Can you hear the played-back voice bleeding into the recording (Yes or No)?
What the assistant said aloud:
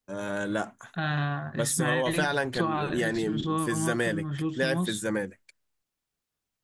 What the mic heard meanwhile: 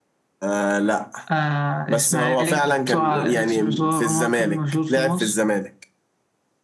Yes